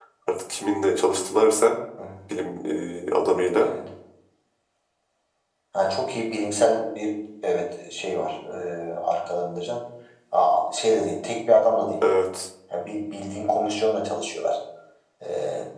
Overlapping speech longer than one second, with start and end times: none

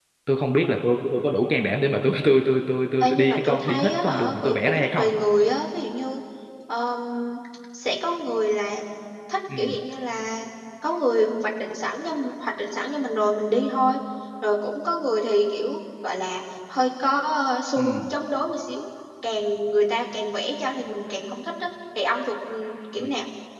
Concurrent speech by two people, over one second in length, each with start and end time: 3.0-5.1

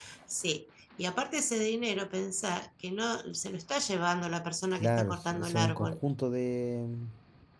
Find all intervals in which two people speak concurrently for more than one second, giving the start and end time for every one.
4.8-6.0

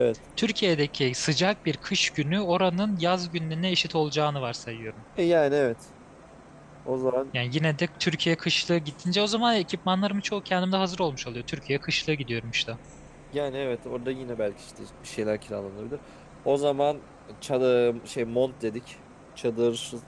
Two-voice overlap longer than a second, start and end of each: none

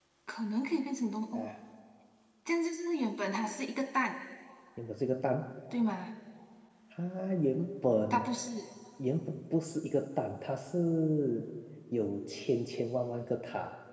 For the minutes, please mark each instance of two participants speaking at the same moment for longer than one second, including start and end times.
none

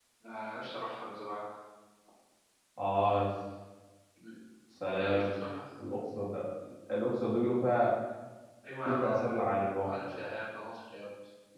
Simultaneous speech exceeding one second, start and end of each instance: 8.8-10.1

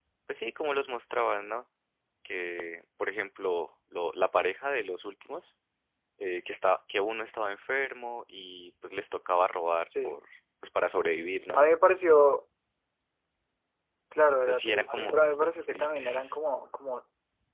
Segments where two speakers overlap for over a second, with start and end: 14.4-16.4

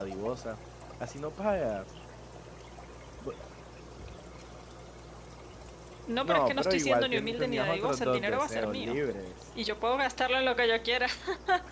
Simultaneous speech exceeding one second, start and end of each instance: 6.2-9.0

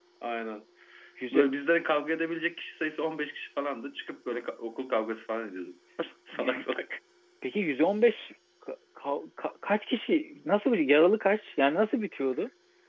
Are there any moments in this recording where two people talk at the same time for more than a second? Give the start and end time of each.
none

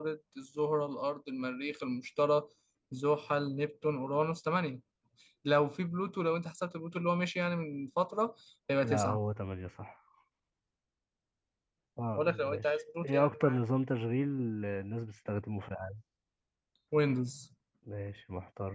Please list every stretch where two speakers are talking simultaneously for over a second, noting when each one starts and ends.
12.2-13.6

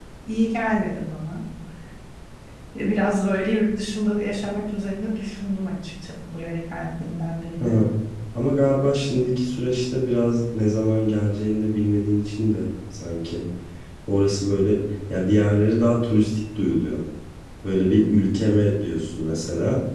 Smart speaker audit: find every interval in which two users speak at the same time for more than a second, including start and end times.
none

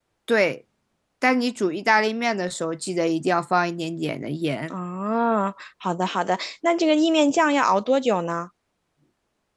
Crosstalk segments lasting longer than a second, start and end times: none

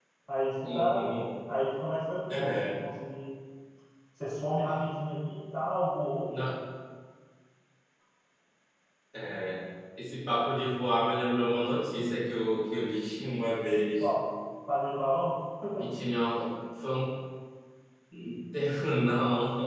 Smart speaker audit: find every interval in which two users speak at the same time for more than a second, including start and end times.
none

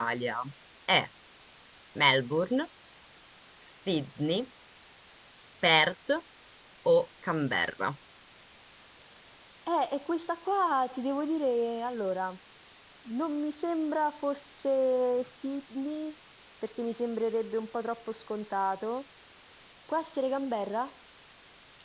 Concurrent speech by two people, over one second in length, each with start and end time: none

